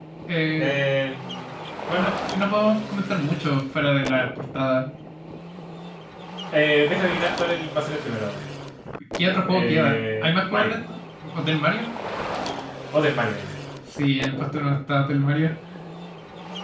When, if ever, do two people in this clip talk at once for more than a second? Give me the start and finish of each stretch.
9.4-10.8

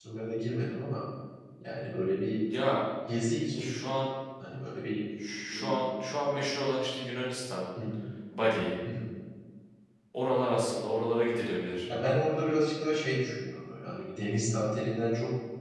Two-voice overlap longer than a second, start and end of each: none

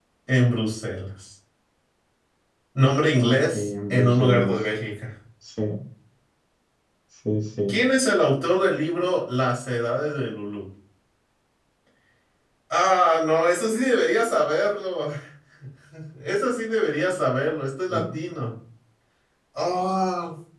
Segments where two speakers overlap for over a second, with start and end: 3.2-4.6

